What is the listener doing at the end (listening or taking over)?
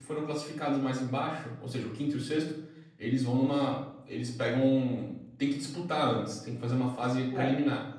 taking over